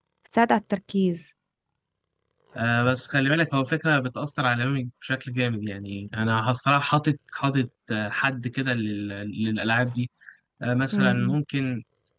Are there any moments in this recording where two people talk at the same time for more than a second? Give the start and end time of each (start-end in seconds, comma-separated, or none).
none